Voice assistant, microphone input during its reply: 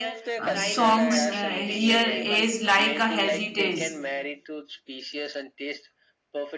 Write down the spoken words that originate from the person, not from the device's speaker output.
Uh, songs uh, here is like a heritage.

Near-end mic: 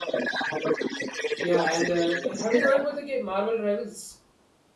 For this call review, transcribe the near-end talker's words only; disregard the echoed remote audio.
Yeah, and uh, have you heard about the game Marvel Rivals?

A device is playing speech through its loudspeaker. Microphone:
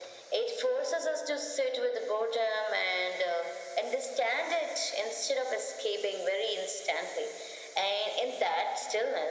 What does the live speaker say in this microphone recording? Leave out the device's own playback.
none

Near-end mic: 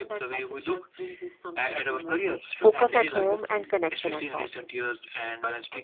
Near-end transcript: focus at home and connection at the office.

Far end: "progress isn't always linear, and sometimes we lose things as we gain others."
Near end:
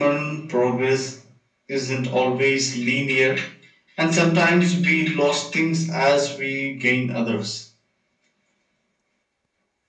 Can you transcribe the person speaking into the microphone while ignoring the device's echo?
none

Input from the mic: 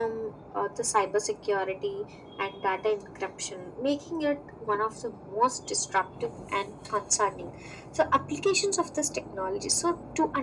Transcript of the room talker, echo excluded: none

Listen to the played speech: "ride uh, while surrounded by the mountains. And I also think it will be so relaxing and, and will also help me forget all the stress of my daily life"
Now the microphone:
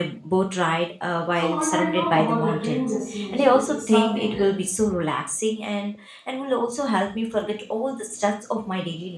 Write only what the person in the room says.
So when I talk about a dream destination, it is something that

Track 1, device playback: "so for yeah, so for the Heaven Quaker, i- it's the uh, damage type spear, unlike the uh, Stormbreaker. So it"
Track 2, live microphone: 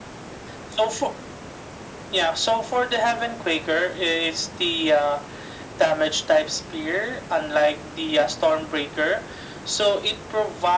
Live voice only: none

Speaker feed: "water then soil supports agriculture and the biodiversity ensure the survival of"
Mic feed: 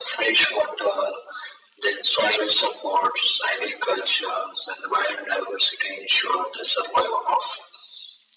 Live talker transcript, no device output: none

